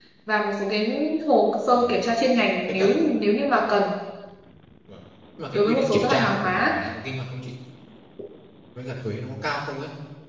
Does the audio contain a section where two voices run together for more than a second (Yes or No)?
Yes